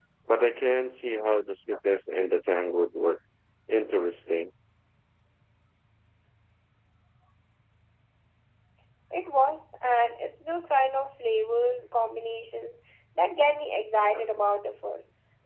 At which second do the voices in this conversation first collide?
none

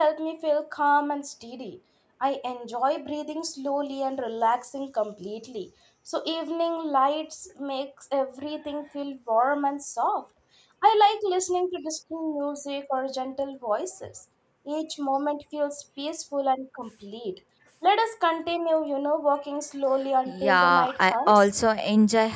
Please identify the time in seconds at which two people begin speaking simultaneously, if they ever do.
20.2 s

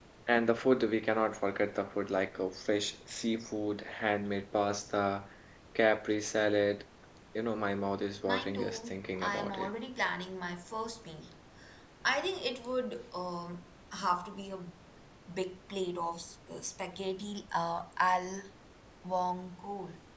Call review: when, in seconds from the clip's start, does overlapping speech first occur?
8.3 s

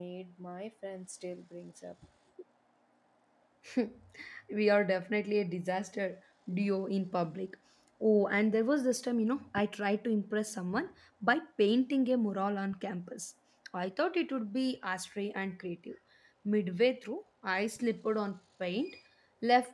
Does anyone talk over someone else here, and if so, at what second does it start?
none

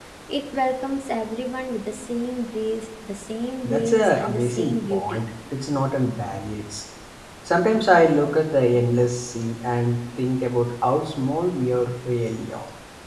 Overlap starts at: 3.6 s

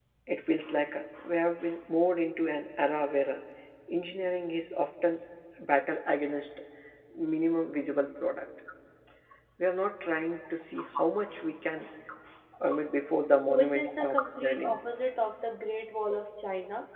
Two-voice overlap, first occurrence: 13.5 s

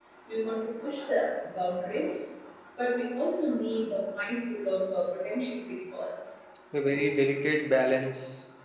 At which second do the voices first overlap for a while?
none

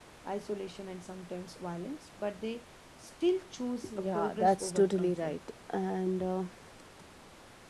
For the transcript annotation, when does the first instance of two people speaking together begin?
3.8 s

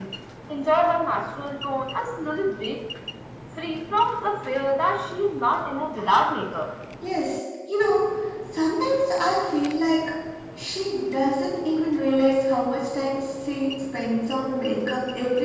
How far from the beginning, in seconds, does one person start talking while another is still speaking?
none

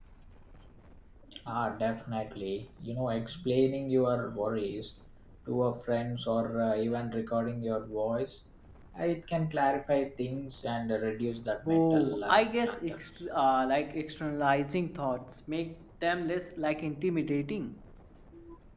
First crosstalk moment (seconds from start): 11.7 s

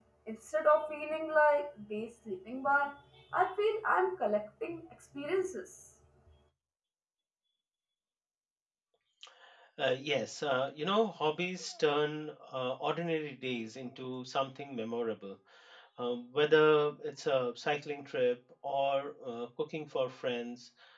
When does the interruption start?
none

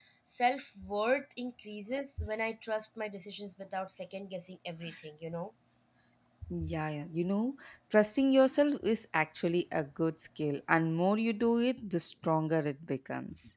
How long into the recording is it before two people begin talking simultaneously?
none

